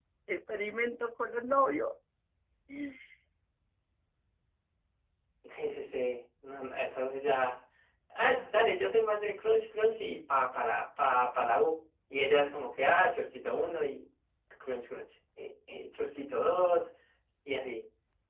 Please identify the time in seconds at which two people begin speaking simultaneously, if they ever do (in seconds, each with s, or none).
none